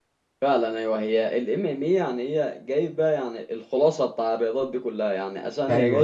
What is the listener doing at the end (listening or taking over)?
listening